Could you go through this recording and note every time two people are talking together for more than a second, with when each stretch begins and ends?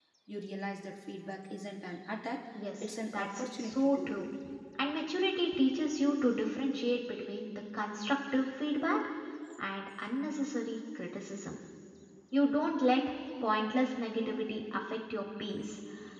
2.8-4.3

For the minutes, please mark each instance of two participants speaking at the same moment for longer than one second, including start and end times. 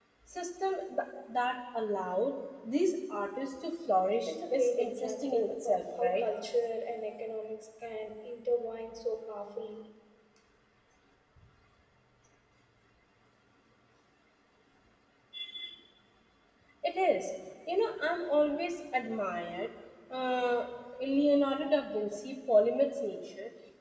4.3-6.2

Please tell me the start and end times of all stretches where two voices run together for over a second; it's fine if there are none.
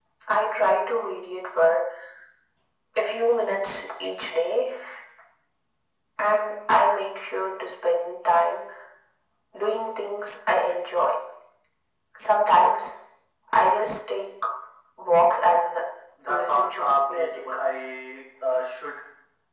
16.2-17.5

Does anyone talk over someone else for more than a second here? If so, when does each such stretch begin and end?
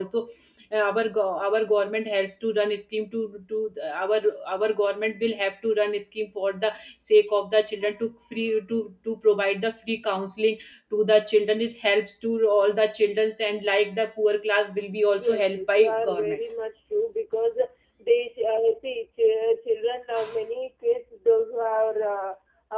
15.1-16.4

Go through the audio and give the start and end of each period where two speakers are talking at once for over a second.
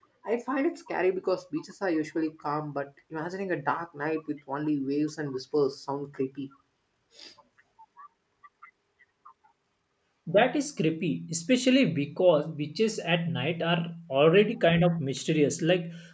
none

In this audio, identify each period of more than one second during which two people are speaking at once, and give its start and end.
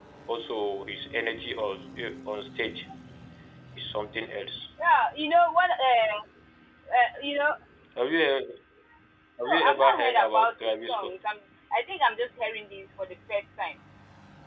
9.5-11.2

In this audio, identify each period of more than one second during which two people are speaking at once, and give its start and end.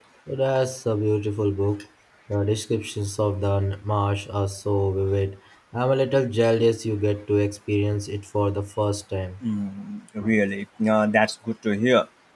none

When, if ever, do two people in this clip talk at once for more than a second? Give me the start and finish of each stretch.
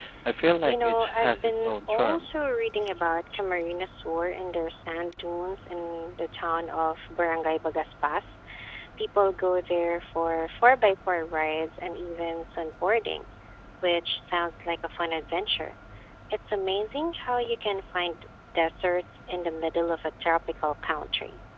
0.6-2.3

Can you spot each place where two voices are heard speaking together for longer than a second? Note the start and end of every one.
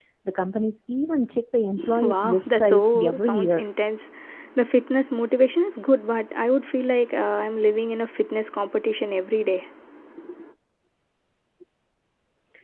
2.0-3.7

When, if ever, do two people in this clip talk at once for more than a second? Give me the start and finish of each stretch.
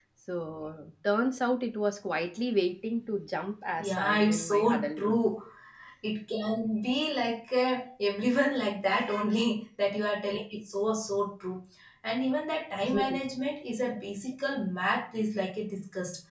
3.8-5.2

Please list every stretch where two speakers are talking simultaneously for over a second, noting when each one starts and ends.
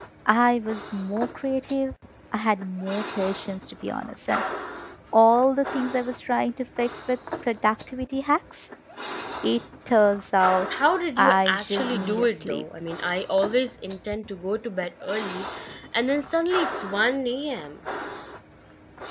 11.2-12.6

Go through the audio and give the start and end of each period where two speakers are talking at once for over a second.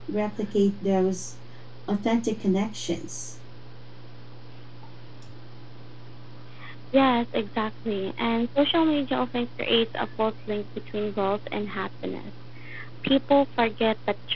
none

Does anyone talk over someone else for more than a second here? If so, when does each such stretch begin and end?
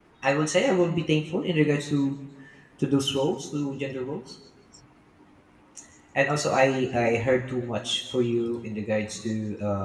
none

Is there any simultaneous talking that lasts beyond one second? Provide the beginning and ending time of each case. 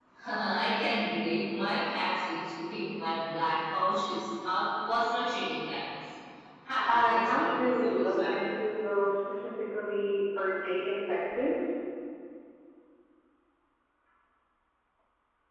6.9-8.6

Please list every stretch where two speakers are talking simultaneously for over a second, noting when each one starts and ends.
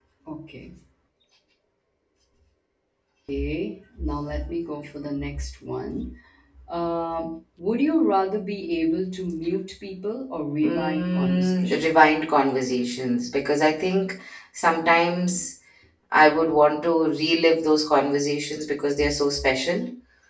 10.6-12.1

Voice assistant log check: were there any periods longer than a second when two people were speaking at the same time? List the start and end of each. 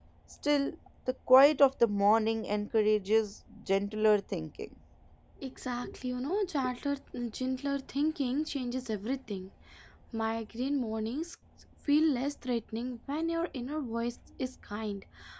none

